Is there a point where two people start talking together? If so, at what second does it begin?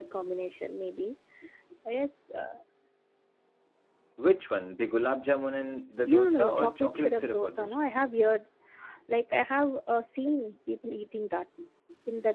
6 s

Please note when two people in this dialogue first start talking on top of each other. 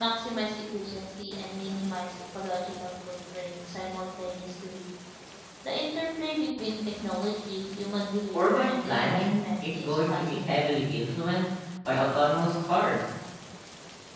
8 s

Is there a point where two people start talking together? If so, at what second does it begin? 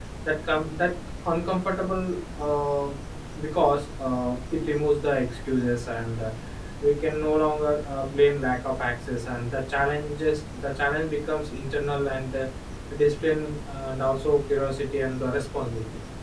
none

